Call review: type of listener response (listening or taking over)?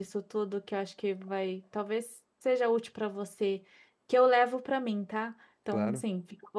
listening